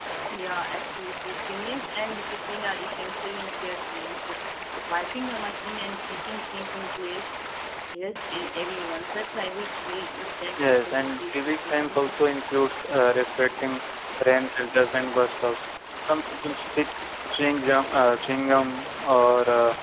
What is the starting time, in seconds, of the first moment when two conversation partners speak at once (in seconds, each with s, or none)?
10.6 s